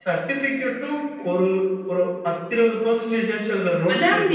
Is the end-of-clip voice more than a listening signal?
Yes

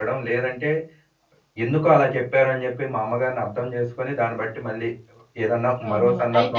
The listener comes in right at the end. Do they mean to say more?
Yes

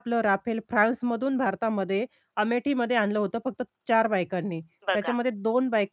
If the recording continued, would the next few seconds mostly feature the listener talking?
No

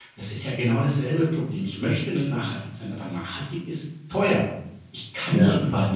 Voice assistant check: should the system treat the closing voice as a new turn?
No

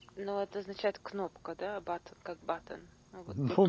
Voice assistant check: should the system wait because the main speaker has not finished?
No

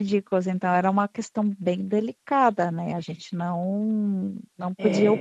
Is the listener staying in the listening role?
Yes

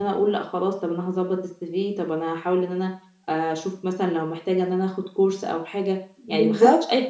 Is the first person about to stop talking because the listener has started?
No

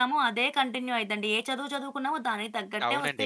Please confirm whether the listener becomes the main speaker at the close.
Yes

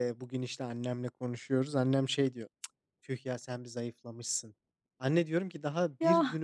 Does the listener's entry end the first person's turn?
No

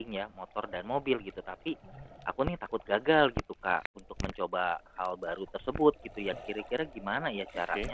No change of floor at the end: Yes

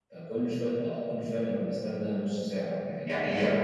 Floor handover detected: Yes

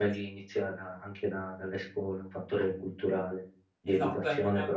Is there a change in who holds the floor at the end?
Yes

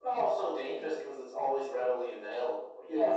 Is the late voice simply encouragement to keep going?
No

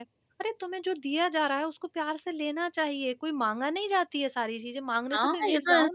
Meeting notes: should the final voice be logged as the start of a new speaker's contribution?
Yes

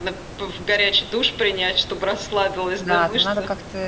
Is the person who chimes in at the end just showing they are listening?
No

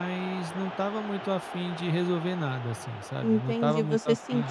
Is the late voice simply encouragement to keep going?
No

